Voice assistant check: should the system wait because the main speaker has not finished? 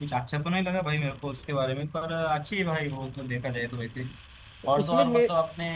Yes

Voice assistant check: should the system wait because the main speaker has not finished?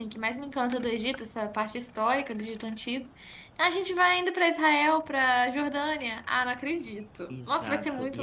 No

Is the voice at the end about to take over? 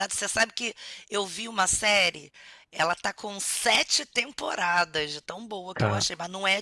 No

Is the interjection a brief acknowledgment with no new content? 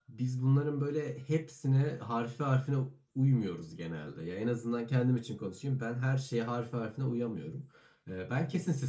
Yes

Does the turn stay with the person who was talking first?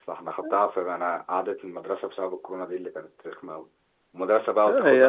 Yes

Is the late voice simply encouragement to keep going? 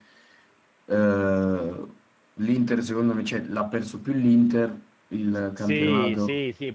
No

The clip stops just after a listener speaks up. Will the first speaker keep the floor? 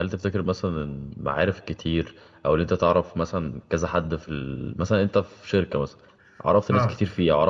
Yes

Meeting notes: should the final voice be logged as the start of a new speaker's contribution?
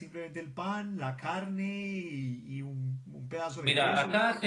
Yes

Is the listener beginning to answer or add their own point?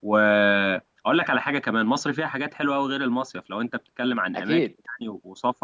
No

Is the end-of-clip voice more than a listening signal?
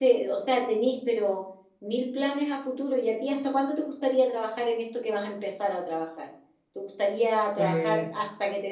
No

